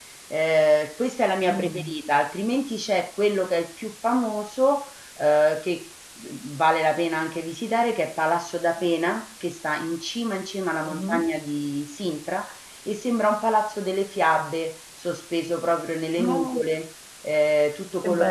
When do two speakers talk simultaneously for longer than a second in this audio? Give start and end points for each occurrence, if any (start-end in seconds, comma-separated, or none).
none